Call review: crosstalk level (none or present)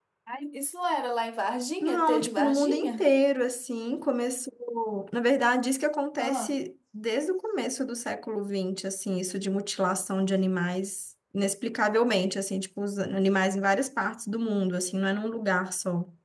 present